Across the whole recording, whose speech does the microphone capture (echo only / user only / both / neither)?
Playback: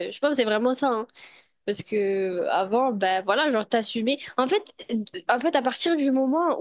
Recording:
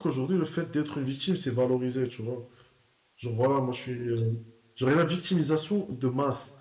user only